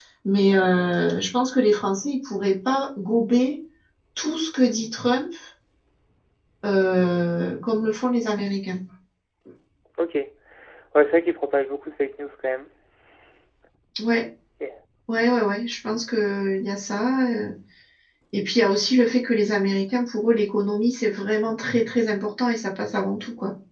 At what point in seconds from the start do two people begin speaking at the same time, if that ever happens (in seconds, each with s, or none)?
none